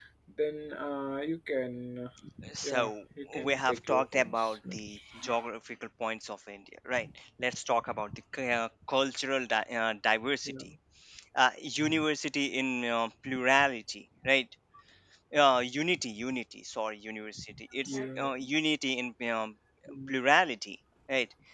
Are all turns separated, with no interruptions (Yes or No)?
No